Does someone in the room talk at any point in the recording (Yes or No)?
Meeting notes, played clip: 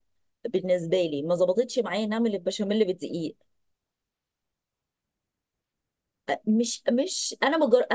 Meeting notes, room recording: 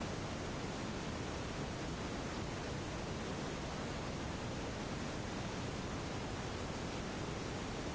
No